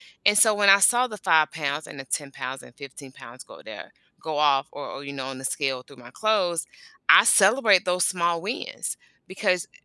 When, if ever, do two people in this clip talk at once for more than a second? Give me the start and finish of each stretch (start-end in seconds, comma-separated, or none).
none